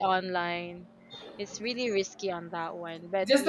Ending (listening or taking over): taking over